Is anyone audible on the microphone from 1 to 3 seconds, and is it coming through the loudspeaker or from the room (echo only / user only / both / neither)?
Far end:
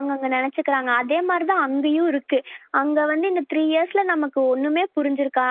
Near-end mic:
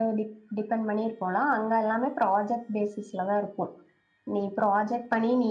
user only